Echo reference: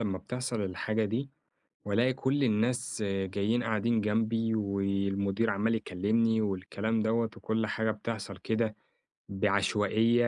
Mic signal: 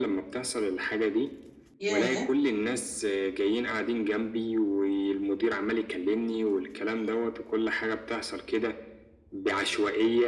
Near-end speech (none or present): present